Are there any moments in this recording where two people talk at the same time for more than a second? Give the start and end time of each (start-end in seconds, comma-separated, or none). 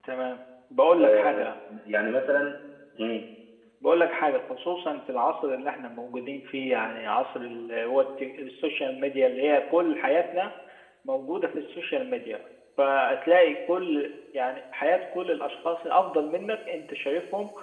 none